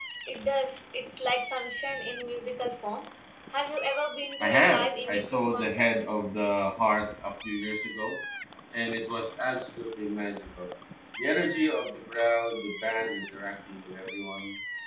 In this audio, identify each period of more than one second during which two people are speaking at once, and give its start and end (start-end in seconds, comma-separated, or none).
4.4-5.9